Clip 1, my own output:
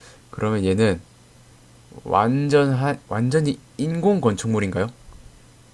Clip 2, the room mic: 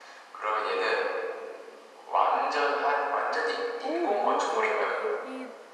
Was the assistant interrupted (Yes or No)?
Yes